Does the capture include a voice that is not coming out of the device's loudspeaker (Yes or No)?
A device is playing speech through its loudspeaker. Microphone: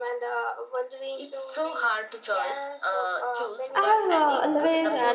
Yes